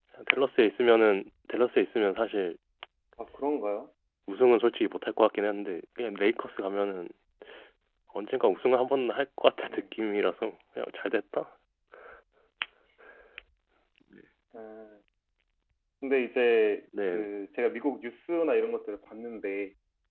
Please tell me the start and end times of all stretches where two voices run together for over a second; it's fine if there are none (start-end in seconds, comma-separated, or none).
none